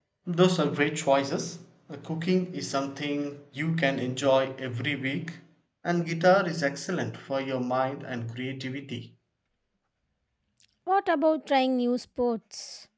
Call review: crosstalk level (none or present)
none